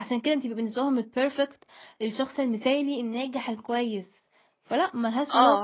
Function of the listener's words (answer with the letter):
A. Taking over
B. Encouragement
A